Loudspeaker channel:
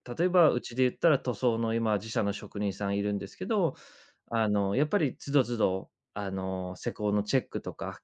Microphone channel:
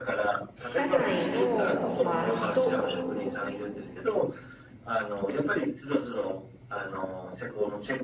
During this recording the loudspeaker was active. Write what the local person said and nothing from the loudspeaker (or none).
社内の、まあ、人